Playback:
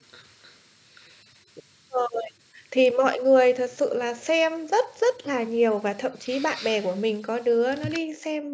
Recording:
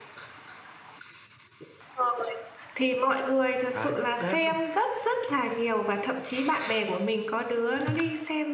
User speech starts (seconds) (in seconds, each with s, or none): 3.7 s